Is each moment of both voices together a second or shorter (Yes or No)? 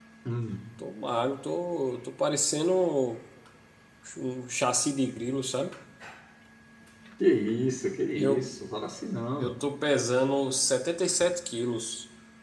Yes